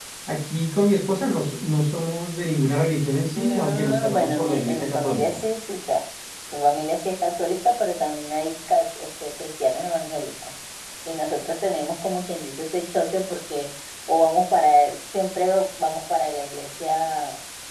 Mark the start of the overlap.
3.4 s

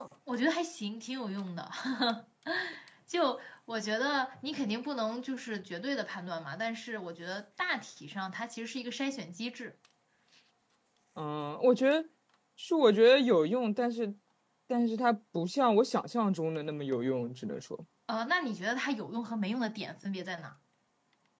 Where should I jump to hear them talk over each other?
none

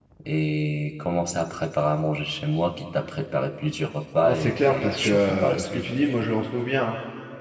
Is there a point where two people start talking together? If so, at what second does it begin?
4.2 s

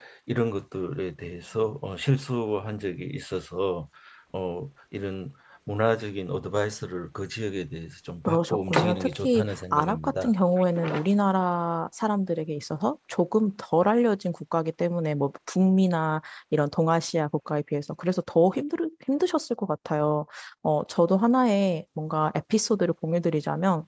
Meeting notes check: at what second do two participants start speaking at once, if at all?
8.3 s

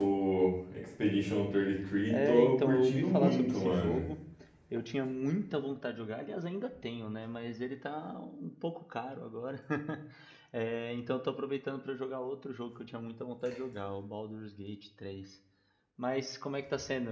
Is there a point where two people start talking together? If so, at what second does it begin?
2.1 s

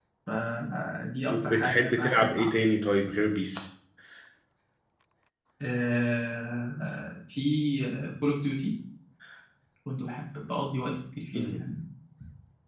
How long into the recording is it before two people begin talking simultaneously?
1.3 s

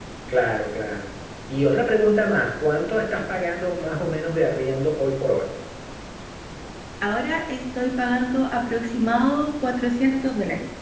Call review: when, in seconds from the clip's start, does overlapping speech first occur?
none

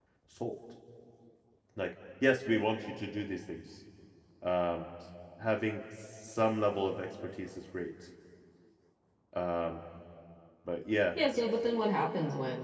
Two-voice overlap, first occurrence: none

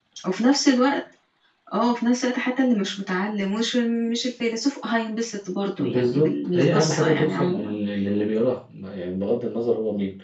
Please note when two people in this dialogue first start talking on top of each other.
5.8 s

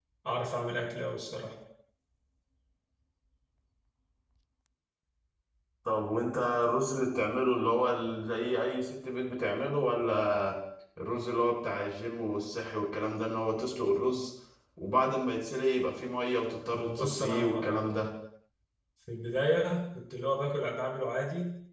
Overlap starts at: 16.7 s

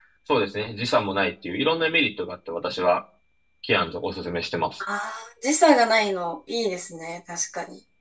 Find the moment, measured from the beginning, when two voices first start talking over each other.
none

